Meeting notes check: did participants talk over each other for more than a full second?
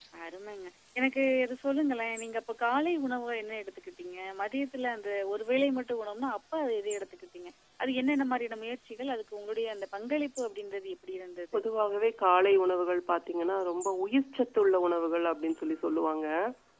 No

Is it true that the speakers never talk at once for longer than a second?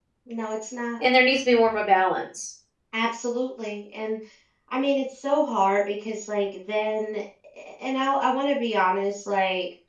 Yes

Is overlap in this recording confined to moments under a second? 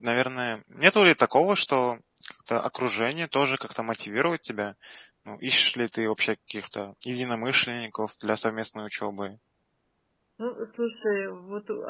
Yes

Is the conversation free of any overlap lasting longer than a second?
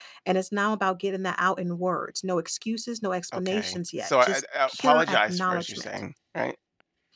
No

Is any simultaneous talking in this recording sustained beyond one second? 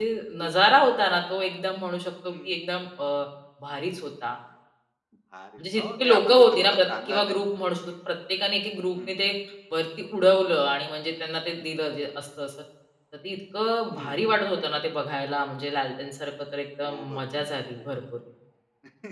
Yes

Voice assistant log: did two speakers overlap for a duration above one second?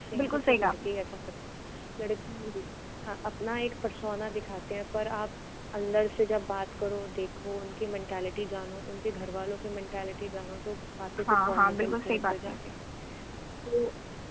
Yes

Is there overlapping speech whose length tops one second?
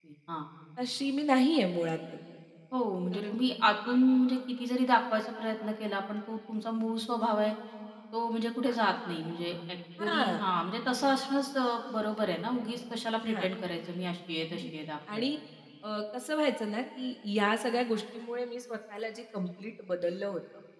No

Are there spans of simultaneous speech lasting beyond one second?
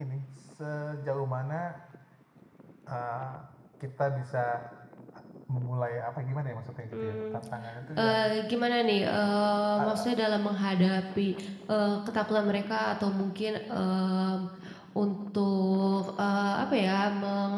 No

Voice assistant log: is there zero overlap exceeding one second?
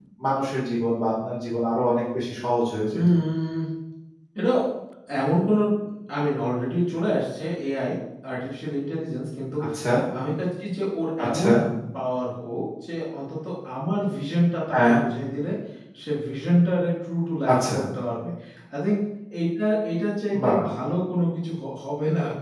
Yes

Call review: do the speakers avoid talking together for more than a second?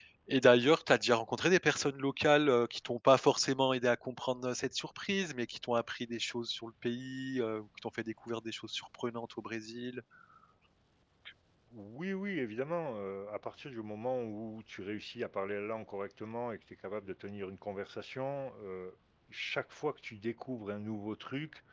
Yes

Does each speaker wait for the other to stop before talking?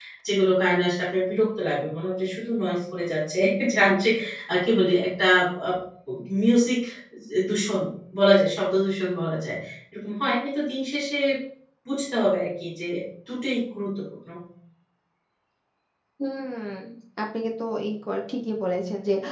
Yes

